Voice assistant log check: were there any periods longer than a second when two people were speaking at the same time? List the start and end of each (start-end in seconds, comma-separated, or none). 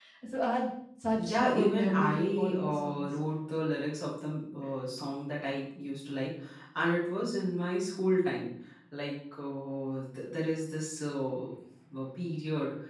1.2-3.1